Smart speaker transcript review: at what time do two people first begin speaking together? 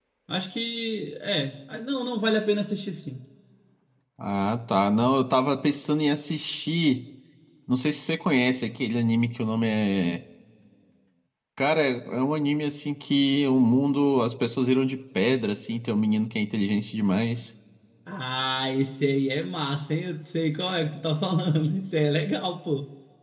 none

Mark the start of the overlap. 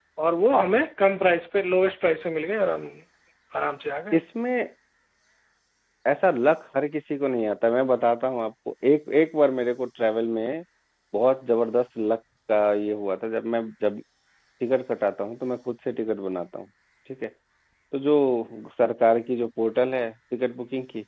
none

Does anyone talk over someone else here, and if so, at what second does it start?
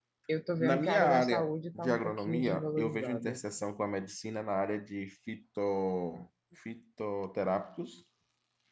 1 s

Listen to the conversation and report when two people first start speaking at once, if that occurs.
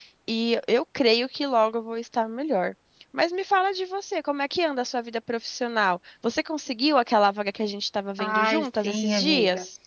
8 s

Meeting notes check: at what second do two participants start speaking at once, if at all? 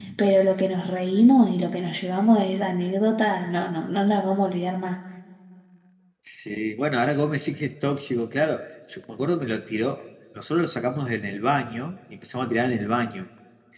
none

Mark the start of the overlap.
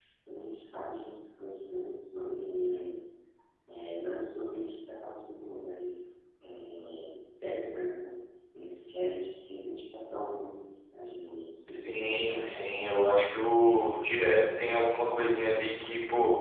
12 s

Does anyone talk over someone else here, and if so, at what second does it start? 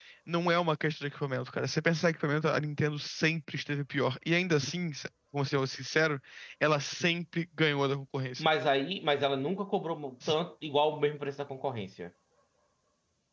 none

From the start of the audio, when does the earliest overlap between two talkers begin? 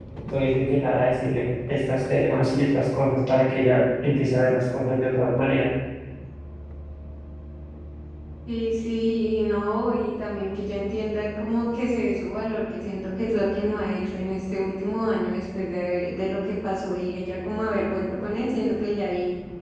none

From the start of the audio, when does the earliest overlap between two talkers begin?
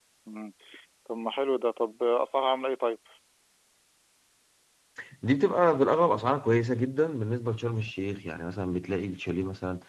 none

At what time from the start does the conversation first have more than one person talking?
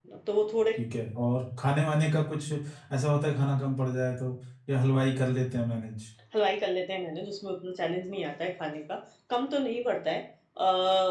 none

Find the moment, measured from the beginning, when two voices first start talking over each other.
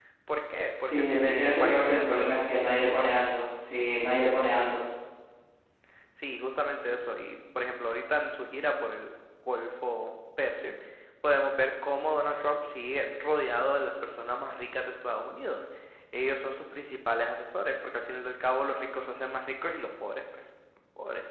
1 s

